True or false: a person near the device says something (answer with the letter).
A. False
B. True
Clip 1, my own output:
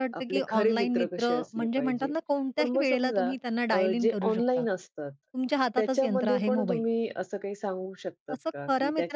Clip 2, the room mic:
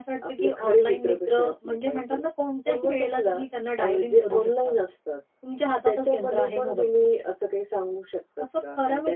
A